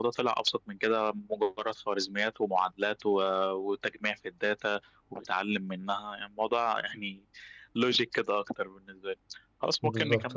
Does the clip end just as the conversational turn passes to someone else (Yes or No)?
No